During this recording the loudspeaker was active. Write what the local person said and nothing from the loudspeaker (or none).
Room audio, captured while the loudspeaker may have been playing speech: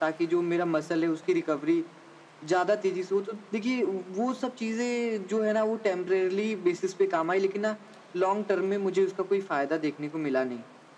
none